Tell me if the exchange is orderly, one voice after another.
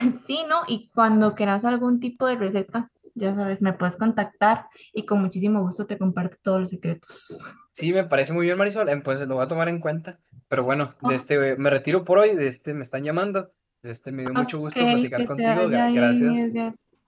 No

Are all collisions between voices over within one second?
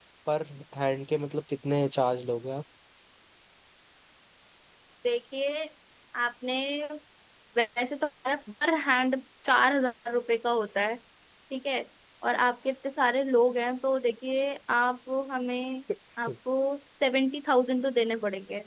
Yes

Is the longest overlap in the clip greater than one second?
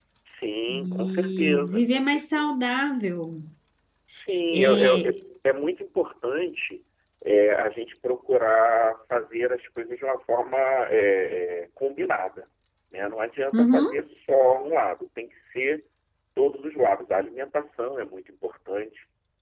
Yes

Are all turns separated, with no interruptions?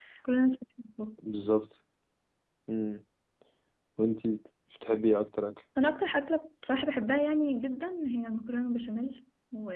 Yes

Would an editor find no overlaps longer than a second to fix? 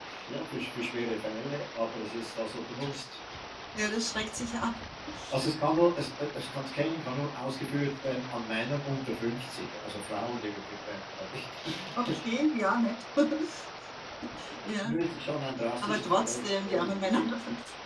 No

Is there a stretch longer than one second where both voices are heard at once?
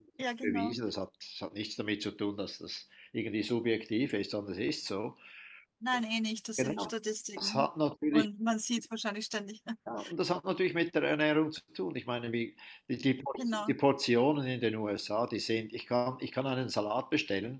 No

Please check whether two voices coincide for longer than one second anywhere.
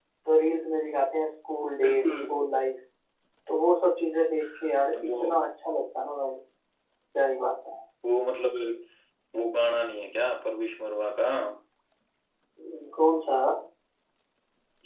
No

